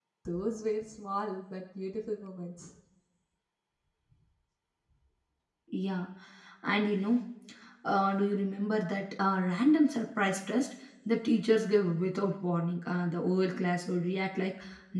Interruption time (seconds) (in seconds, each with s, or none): none